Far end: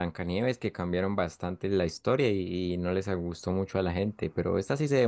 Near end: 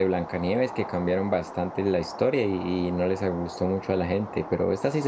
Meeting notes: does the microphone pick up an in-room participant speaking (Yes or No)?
No